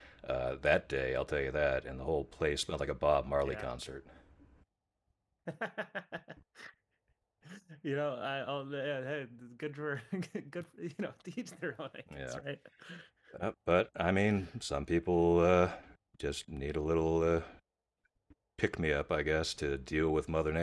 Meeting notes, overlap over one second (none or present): none